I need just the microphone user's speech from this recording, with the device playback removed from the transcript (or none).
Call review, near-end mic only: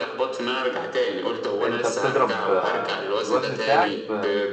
انت بتضرب آه، الوزن بتاعك في